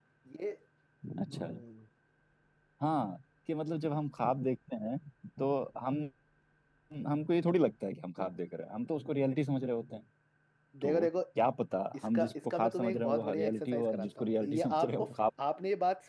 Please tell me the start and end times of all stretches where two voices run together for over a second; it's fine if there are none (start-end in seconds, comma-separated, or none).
11.9-15.1